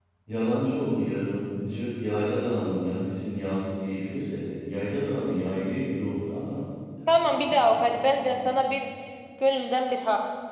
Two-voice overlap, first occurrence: 7.1 s

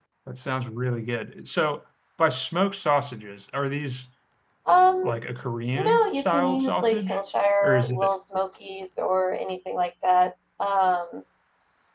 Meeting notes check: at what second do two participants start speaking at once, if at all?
5.8 s

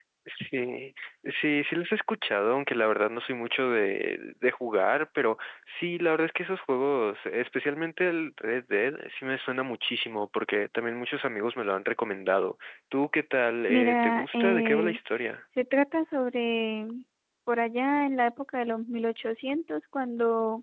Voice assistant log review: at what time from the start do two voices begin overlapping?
13.7 s

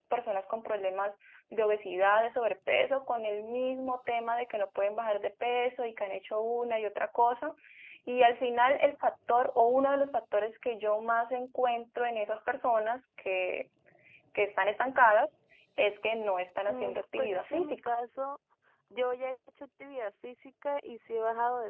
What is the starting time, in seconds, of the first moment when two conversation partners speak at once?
16.7 s

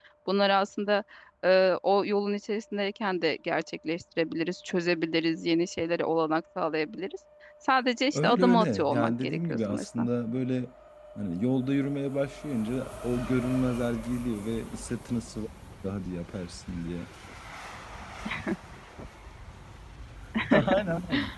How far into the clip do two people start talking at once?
8.1 s

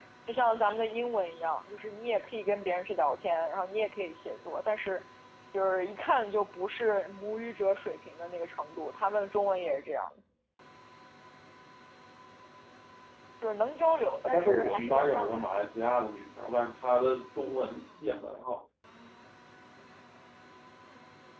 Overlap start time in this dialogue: 14.2 s

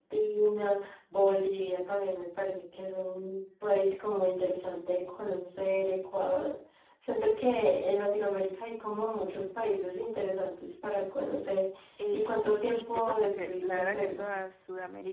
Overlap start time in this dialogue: 12.1 s

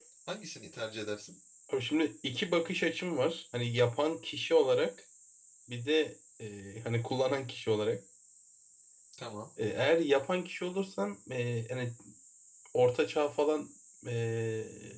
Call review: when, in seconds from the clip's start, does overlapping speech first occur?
none

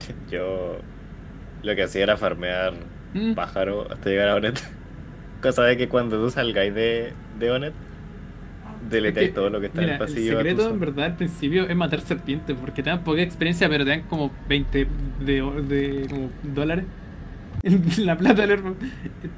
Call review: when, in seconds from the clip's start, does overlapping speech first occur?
9.1 s

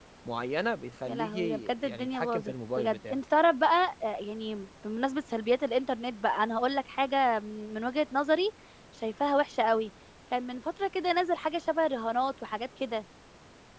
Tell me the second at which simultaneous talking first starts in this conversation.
1.1 s

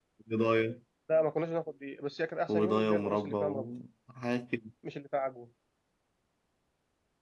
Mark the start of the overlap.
2.5 s

